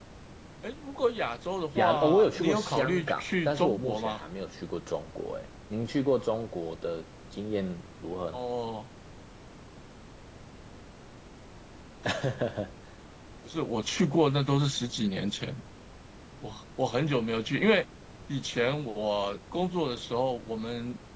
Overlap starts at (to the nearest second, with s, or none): 2 s